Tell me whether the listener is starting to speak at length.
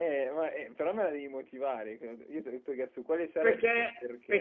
Yes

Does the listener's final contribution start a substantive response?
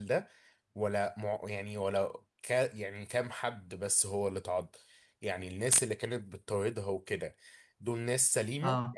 No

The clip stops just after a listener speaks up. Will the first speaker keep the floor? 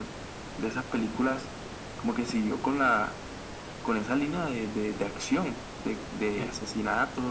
Yes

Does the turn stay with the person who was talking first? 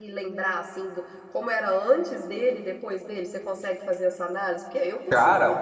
No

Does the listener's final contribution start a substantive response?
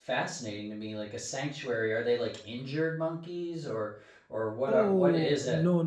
Yes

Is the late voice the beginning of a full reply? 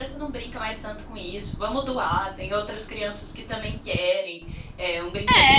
Yes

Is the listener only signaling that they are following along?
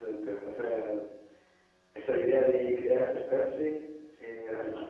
Yes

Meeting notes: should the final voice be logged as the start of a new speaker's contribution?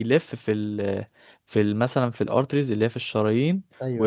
No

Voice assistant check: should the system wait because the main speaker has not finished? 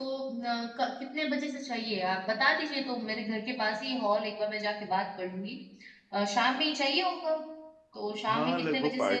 No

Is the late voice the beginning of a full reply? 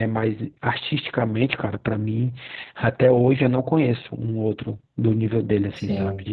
Yes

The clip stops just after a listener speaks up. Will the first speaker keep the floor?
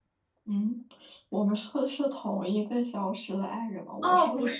No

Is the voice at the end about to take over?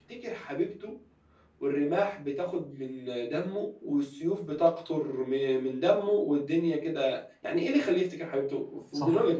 Yes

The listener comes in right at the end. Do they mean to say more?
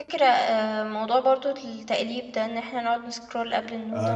Yes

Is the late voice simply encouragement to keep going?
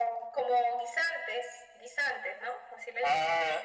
No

